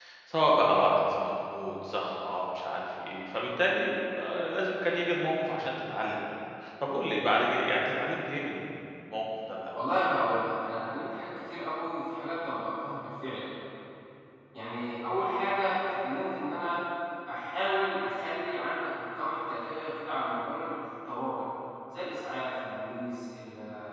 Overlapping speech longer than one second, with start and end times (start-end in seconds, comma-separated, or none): none